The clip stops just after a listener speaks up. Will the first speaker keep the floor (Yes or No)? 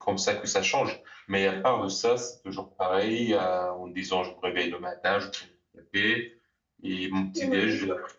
Yes